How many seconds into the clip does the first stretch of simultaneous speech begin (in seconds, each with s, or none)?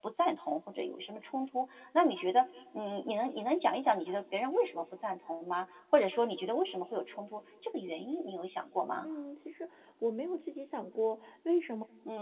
none